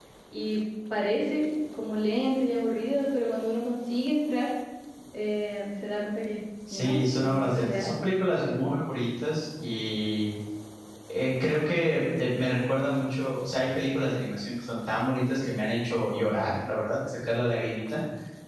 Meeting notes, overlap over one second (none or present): present